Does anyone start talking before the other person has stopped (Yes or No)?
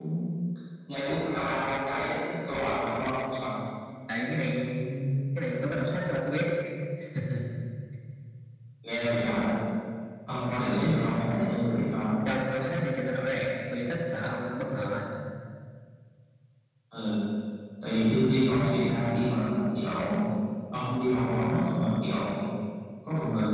No